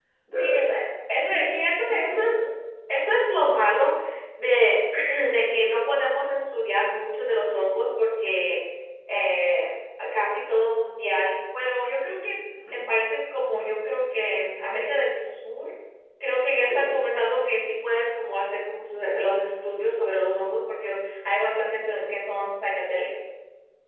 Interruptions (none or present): present